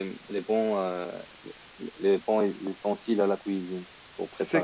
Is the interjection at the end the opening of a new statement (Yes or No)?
Yes